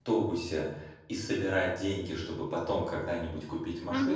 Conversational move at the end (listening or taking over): listening